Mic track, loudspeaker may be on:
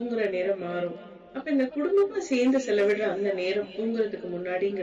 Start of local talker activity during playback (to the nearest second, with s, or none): none